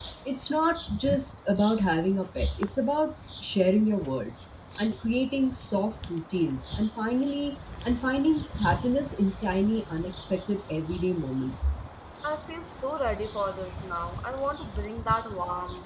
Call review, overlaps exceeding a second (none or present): none